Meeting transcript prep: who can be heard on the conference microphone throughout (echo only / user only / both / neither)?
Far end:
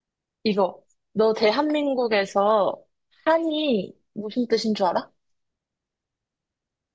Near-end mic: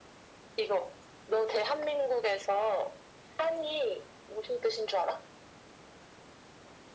echo only